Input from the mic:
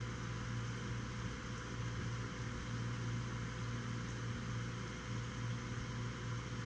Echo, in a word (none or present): none